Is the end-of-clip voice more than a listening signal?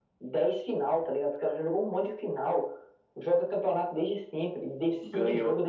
Yes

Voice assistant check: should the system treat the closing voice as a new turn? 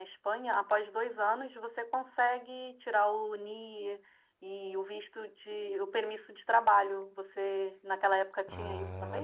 Yes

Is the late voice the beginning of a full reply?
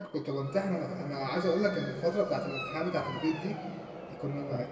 No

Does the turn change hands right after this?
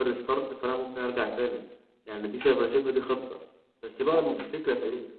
No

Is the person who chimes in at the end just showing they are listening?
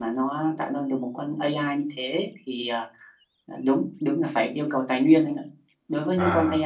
Yes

